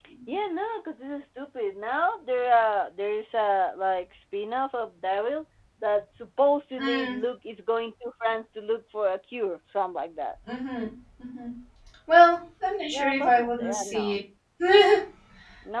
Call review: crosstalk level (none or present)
present